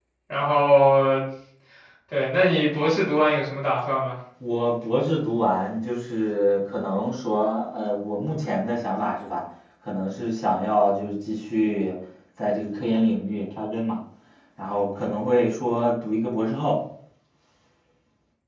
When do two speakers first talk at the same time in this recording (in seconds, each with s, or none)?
none